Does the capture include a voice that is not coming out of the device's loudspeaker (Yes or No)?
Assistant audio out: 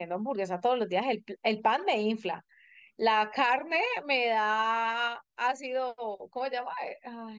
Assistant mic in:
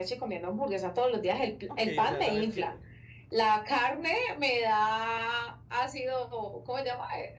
Yes